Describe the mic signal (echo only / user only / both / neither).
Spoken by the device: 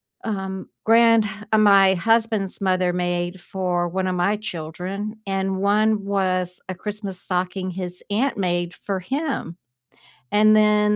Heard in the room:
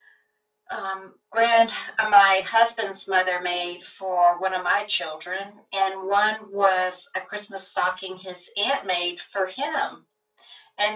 echo only